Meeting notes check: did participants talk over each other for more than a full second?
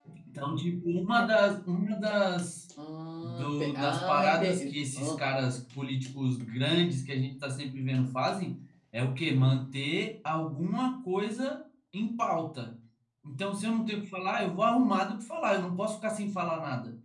Yes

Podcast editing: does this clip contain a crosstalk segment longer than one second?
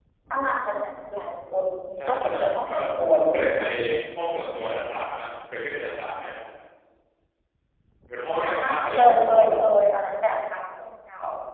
Yes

